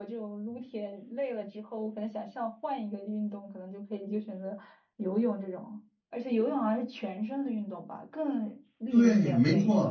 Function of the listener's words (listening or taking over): taking over